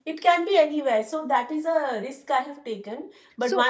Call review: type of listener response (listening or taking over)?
listening